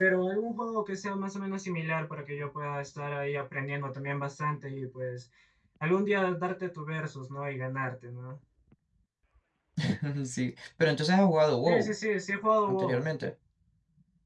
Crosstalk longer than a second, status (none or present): none